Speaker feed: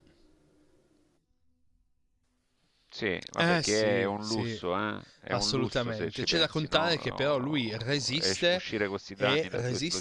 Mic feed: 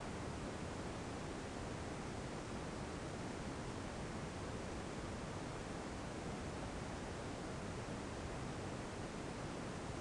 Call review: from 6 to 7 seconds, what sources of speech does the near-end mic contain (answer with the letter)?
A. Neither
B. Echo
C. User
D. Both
A